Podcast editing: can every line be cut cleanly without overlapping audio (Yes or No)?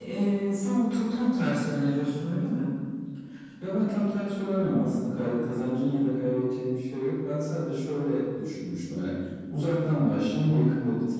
Yes